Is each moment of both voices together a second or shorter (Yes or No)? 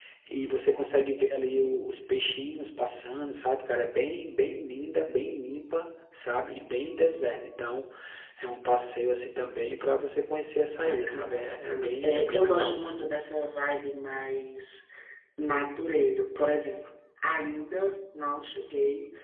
No